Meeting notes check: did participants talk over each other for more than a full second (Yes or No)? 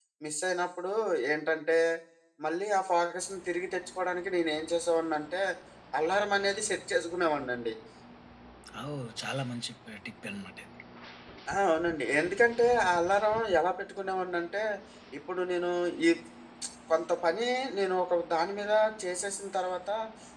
No